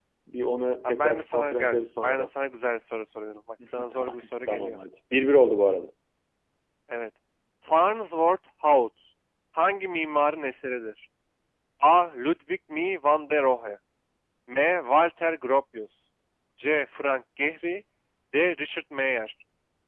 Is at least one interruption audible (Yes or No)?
Yes